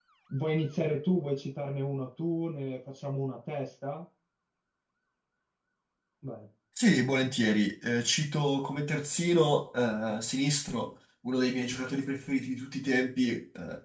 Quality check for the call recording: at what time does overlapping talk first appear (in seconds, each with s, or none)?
none